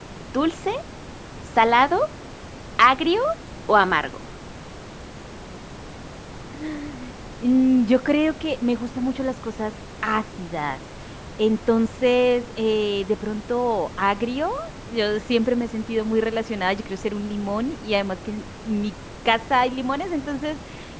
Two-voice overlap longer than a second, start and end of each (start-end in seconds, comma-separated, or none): none